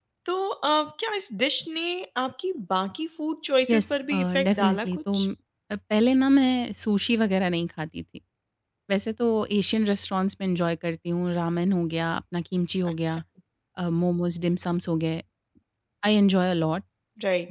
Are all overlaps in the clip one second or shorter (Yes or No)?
No